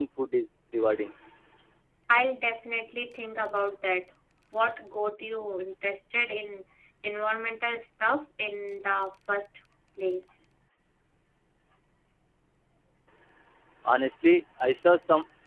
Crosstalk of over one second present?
No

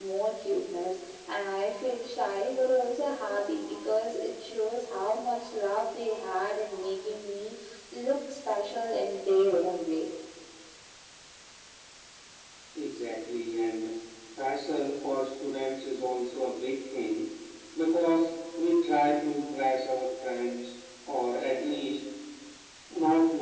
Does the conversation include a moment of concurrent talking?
No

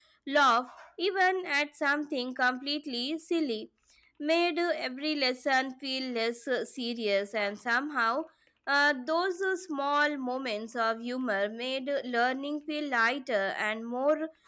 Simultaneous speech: No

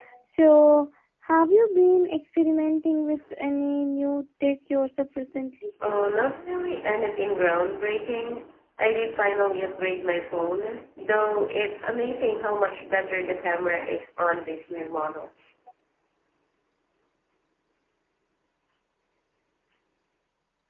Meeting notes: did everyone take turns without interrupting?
Yes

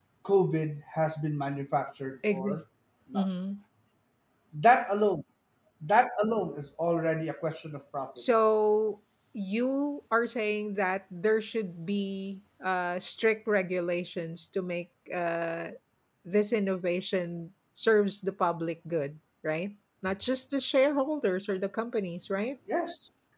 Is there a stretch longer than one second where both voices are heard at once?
No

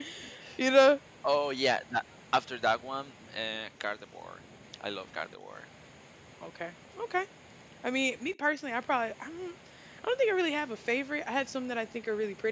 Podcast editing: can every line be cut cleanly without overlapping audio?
Yes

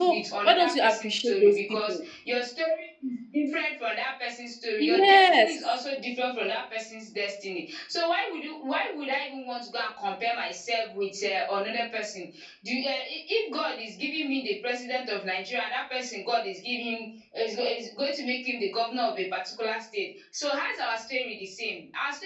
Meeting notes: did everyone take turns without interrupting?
No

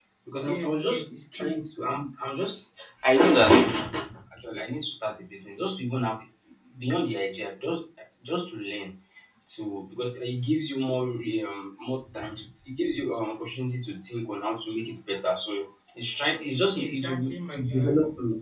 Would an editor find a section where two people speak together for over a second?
Yes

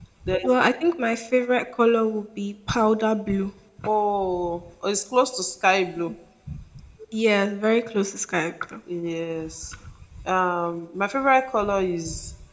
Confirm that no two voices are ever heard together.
Yes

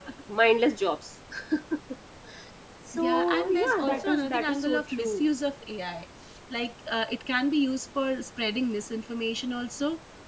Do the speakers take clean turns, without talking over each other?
No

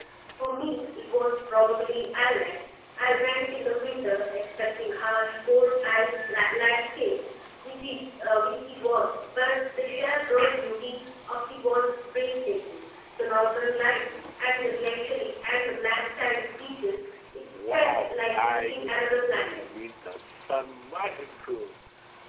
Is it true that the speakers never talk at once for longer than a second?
No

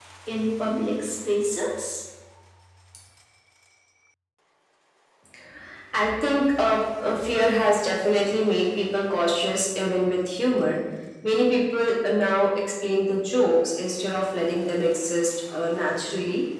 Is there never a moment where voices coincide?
Yes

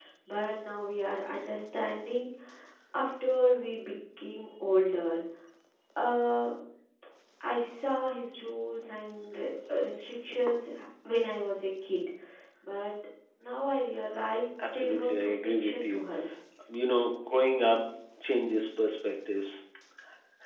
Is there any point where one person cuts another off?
Yes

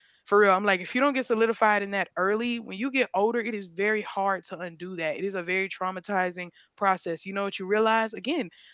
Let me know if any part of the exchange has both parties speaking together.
No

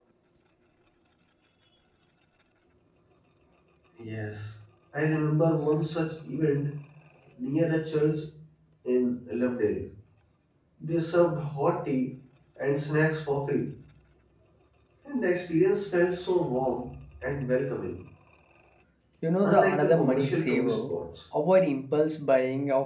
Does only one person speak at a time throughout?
No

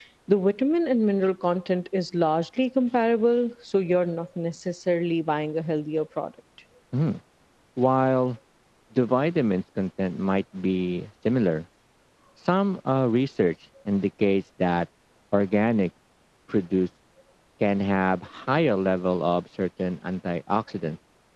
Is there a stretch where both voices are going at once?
No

